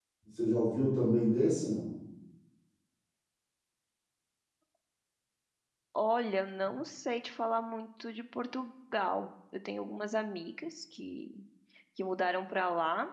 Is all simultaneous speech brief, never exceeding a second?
Yes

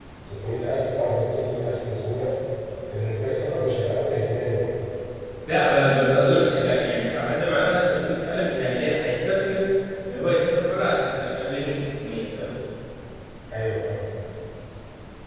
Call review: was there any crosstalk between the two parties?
No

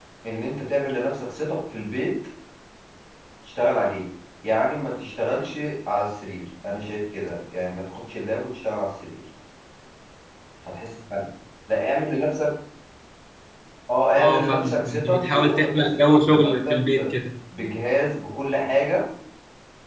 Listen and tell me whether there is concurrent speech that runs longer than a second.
Yes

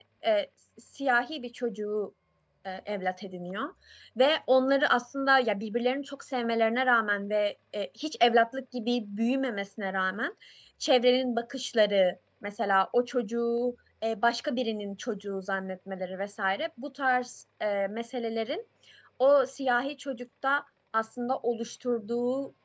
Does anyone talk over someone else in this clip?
No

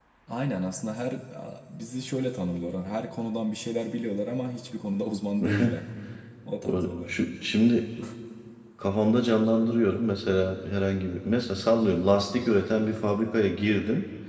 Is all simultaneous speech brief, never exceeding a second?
Yes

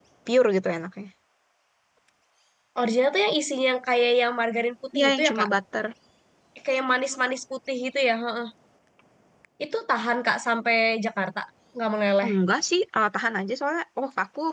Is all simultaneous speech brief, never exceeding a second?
Yes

